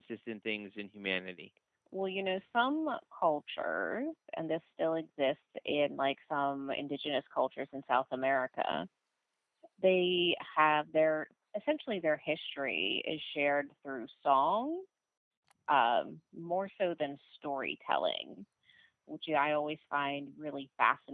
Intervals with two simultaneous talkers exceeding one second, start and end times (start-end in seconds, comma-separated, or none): none